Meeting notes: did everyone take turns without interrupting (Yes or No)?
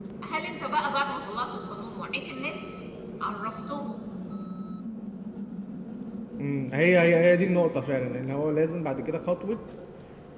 Yes